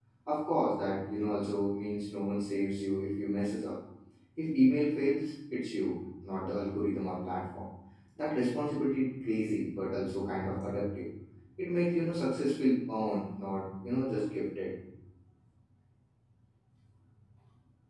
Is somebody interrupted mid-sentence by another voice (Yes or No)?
No